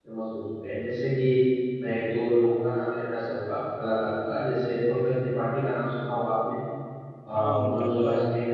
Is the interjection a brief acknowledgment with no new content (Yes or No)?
No